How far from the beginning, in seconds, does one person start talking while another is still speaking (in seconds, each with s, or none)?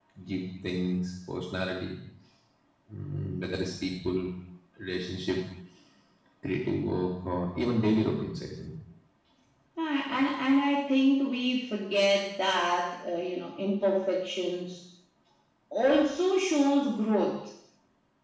none